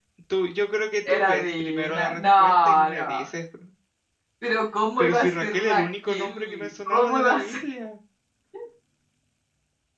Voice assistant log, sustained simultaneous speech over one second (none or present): present